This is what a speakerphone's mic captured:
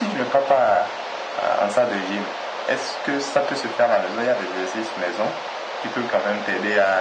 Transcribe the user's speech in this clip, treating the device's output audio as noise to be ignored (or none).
none